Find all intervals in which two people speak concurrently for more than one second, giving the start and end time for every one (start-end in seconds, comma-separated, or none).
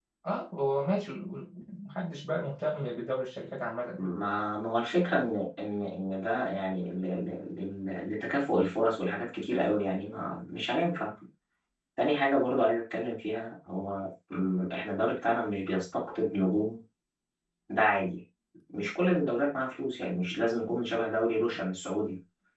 none